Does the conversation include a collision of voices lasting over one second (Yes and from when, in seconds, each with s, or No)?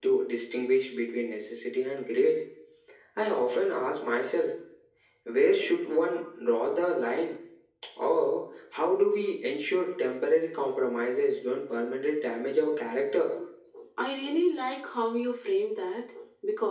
No